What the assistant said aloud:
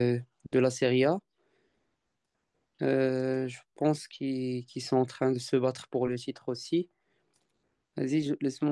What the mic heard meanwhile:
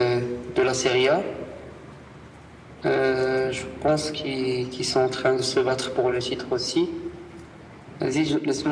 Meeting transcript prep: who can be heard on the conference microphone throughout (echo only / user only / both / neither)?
echo only